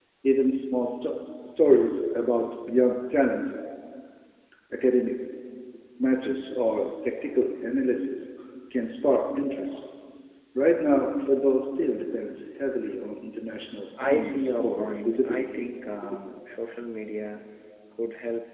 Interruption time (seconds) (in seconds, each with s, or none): 14.0 s